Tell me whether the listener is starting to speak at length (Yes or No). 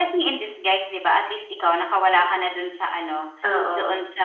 No